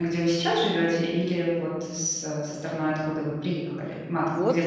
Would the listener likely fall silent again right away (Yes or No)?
No